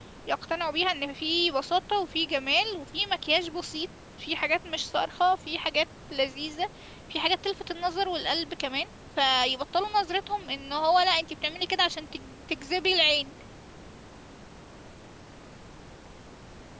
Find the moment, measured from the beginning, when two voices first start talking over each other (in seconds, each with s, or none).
none